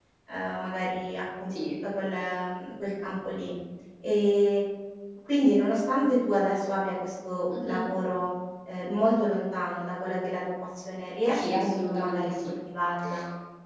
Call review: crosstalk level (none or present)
present